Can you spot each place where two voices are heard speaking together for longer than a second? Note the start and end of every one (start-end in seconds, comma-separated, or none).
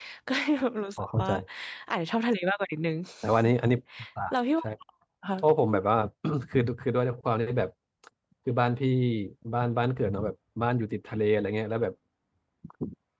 none